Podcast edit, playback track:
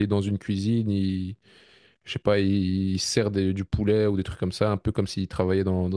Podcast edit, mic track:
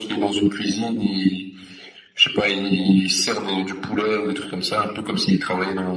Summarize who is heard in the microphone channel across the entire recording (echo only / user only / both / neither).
echo only